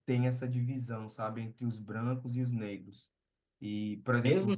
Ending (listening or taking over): taking over